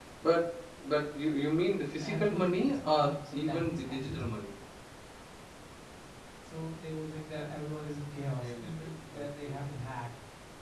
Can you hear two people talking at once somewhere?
Yes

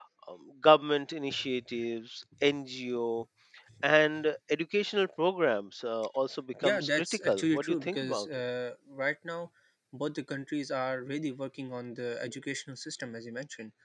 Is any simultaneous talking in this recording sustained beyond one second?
Yes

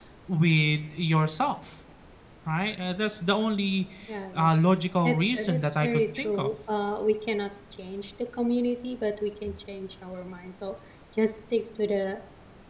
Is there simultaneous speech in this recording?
Yes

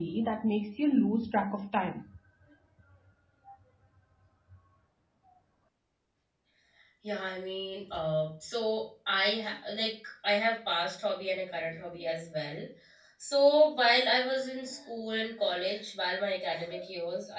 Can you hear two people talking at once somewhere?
No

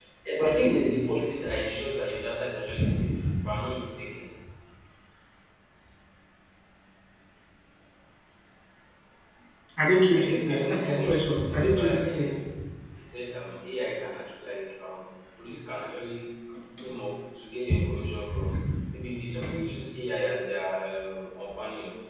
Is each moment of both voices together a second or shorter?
No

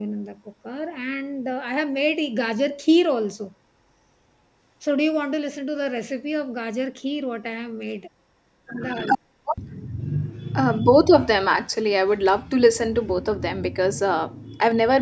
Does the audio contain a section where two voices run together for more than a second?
No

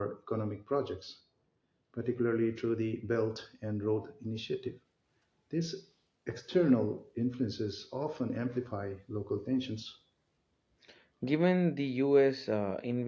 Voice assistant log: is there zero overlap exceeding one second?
Yes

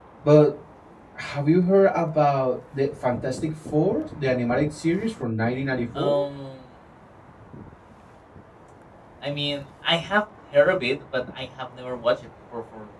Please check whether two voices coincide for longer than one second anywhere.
No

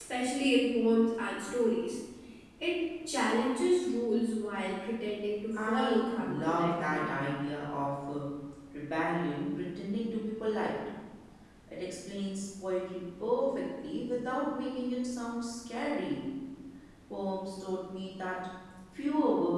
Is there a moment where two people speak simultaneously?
Yes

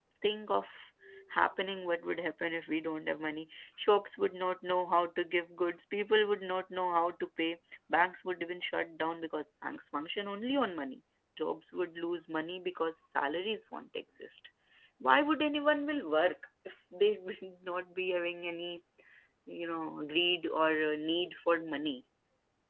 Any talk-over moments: No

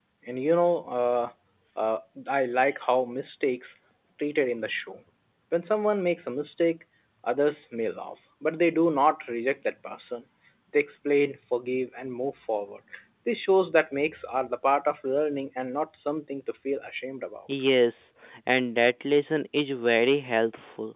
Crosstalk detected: No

